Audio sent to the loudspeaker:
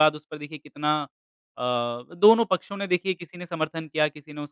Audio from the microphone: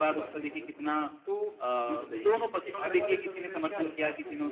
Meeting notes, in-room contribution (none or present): present